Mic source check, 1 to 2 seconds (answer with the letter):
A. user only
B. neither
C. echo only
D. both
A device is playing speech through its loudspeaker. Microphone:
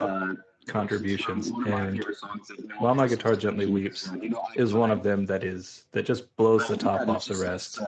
D